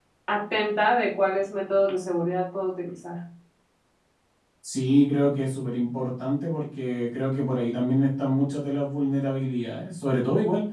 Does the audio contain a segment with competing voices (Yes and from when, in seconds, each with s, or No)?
No